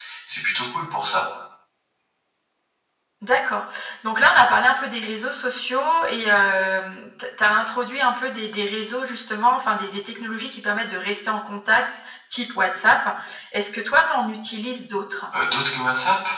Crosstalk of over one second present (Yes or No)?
No